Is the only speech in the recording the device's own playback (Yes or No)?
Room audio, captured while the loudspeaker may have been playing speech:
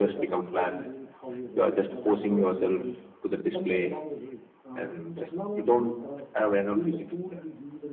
No